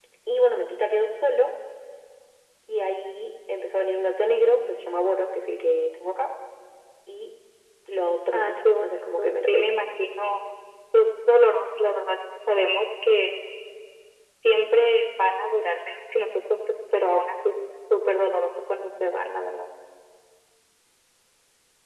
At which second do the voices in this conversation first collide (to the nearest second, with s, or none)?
8 s